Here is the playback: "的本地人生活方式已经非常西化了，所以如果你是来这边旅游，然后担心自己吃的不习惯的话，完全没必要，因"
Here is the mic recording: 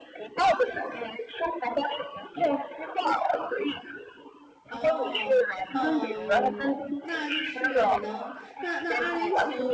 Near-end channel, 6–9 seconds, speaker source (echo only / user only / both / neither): both